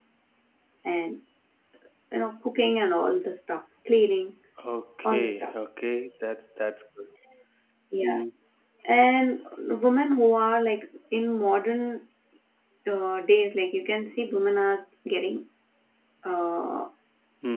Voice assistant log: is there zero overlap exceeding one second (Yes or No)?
Yes